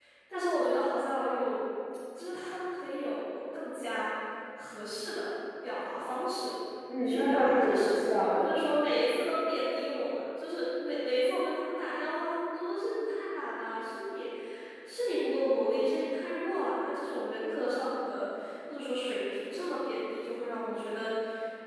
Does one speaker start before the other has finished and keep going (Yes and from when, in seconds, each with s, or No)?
Yes, from 7.0 s